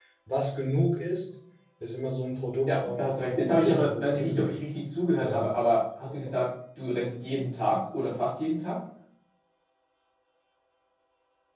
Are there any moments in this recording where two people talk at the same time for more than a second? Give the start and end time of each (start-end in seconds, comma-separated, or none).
2.7-4.5